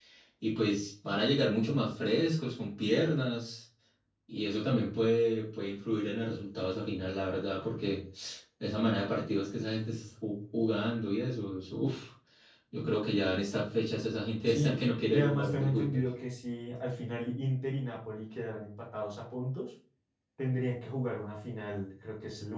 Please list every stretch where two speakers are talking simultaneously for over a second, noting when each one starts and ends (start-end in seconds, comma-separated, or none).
14.5-16.0